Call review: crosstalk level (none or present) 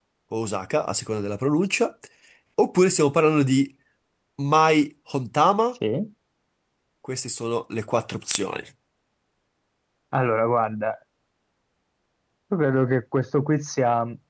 none